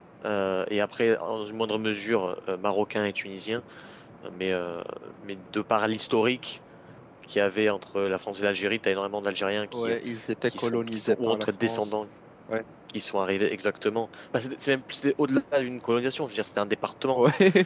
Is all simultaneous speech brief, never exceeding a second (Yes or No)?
No